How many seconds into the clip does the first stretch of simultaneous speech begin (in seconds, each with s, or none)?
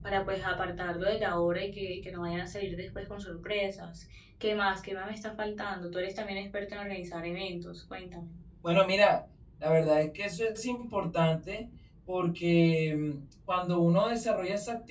none